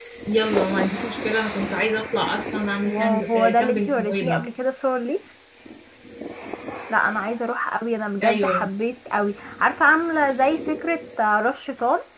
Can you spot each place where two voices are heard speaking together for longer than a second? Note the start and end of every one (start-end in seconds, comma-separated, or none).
2.8-4.4